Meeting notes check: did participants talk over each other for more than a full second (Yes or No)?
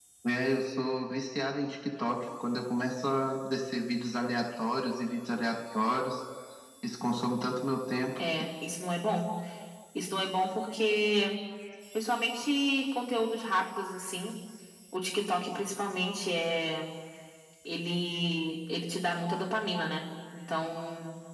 No